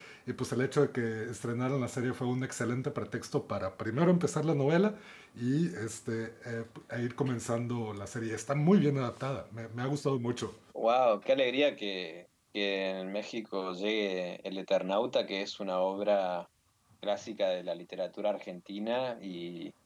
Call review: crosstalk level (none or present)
none